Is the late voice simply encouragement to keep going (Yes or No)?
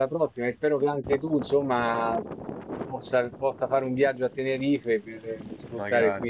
Yes